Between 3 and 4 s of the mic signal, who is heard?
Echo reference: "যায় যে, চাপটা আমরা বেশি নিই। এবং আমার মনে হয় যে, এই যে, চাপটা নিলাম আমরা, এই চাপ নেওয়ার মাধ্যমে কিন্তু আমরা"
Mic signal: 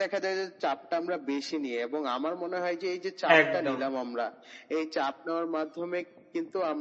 both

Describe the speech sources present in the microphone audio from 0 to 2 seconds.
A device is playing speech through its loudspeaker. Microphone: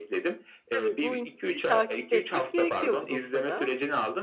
both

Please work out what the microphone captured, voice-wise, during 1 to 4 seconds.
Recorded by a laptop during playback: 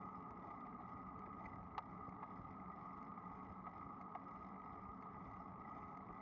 neither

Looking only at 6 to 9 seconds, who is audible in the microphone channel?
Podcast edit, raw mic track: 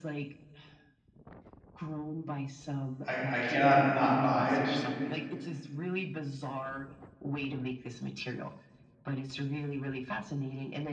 echo only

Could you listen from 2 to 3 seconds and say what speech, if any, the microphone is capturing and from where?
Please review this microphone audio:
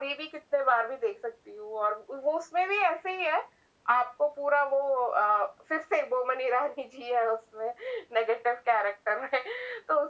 echo only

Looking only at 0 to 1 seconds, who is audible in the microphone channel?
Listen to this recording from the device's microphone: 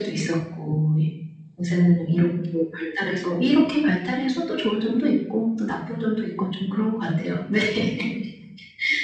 echo only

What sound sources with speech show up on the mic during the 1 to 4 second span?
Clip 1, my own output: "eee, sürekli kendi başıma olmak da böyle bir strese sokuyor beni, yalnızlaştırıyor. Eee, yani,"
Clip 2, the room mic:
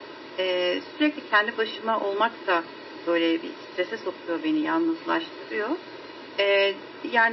echo only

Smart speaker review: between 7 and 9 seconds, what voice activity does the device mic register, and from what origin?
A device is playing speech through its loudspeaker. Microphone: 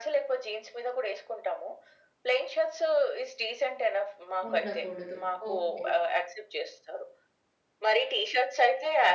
echo only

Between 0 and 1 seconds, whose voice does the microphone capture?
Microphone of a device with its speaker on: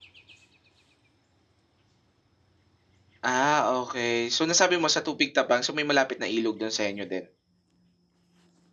neither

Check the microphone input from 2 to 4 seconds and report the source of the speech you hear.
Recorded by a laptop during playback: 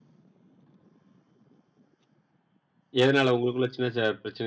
user only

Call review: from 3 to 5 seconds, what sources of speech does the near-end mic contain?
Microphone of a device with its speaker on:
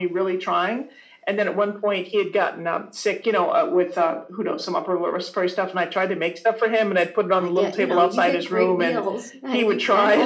echo only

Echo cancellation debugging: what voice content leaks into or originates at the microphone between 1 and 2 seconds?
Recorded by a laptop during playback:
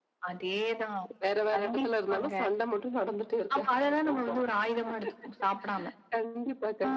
echo only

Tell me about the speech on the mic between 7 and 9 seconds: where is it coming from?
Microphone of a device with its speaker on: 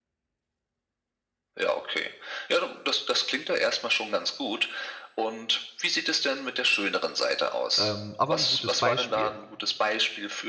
both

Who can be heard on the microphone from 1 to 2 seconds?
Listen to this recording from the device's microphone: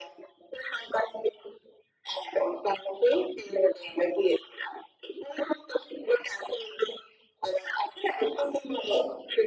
echo only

